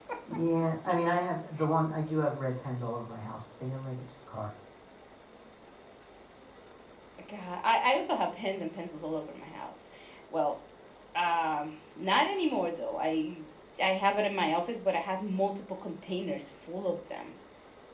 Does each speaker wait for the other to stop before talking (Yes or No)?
Yes